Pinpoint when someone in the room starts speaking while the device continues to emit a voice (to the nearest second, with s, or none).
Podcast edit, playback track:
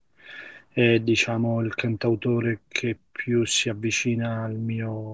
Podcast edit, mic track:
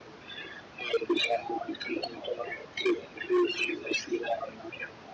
none